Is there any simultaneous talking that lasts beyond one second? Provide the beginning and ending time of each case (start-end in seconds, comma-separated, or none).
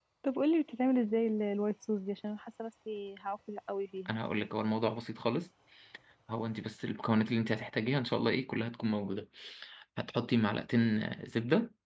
none